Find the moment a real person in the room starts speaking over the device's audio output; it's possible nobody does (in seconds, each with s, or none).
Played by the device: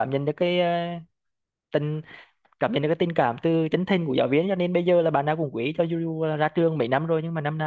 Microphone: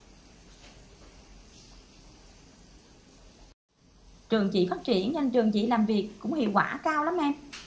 4.3 s